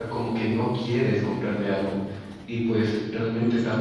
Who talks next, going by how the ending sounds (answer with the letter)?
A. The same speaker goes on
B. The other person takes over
A